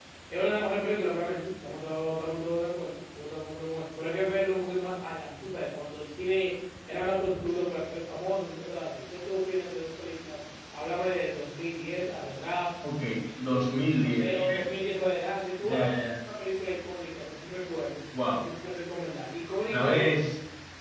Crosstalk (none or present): present